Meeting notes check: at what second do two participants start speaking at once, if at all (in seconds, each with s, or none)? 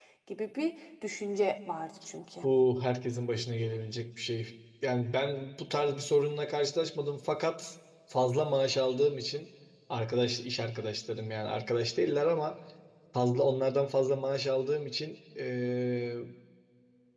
none